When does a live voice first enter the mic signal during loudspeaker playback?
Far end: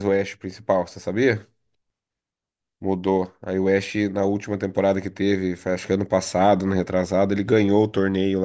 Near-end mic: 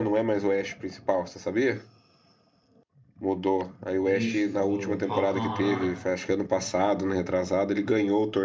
4.0 s

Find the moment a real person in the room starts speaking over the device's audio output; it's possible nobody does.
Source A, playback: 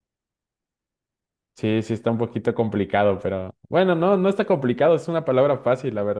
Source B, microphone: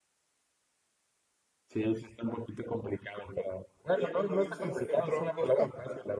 3.9 s

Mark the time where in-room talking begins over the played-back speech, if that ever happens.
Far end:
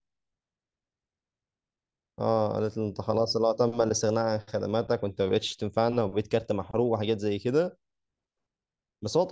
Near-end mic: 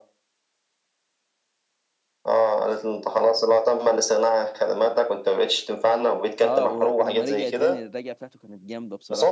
6.4 s

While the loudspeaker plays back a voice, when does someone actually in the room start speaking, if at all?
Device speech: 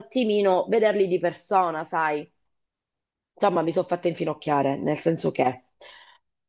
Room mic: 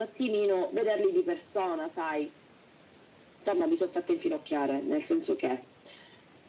none

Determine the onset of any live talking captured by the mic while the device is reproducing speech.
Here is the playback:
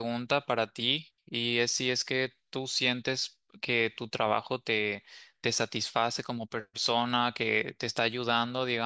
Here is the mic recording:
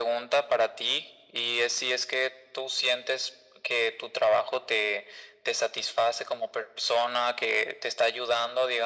none

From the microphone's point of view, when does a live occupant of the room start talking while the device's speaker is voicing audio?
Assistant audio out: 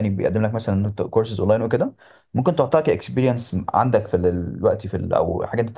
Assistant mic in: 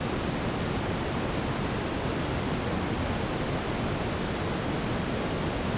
none

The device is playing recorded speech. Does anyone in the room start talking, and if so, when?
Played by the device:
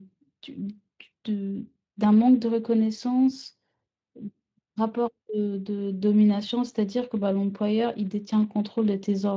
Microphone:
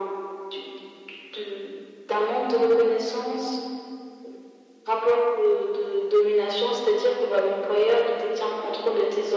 none

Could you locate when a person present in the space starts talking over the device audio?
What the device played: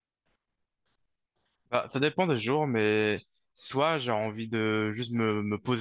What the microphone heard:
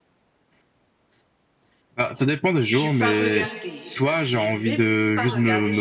2.7 s

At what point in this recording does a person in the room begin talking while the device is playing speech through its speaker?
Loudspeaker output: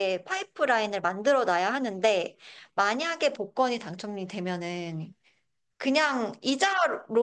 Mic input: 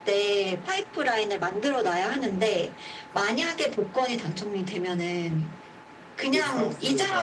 6.3 s

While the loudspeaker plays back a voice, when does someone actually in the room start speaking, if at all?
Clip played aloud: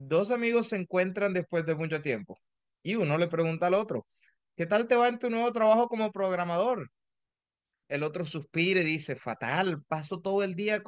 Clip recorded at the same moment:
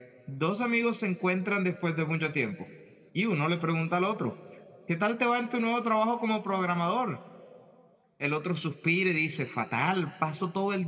none

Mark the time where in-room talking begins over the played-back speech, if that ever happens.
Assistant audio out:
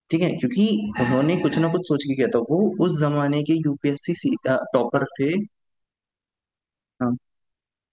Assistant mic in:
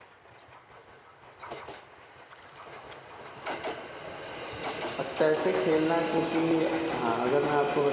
5.0 s

